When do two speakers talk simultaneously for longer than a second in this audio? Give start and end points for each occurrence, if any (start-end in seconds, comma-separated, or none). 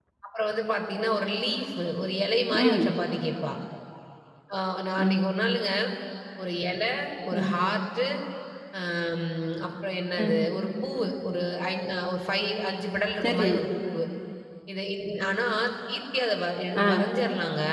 none